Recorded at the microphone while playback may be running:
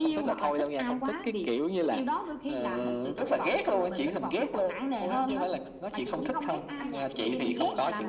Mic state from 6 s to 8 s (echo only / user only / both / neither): both